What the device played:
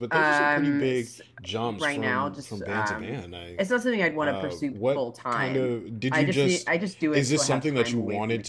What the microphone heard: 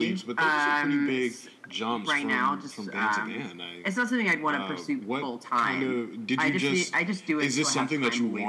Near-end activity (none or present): none